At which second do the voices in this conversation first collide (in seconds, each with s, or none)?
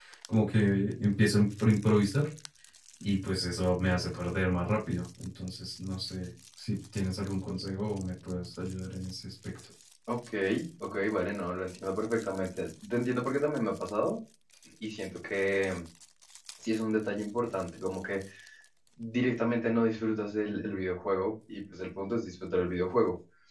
none